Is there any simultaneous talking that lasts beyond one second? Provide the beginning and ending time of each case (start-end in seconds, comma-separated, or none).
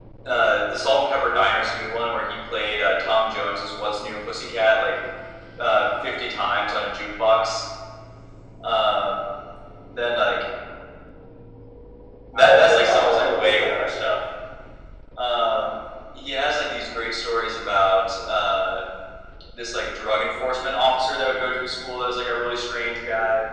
12.3-13.9